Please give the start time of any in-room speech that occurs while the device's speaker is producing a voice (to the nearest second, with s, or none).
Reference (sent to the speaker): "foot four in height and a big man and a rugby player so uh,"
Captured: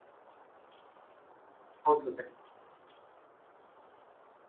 2 s